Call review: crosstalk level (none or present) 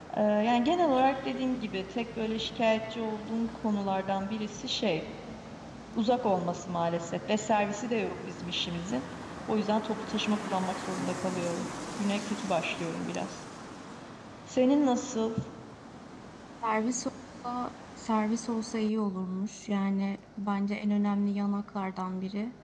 none